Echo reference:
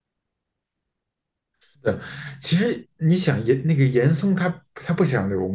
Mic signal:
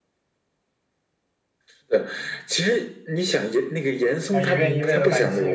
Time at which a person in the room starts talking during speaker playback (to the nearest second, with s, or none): 4 s